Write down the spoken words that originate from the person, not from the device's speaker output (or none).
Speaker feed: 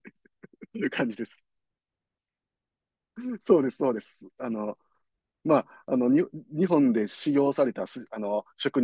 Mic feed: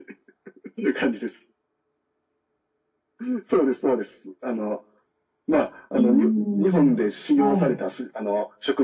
うーん、はい。